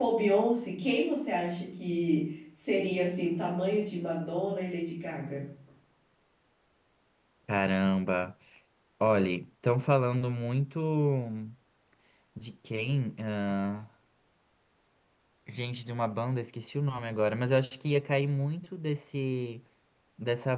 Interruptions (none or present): none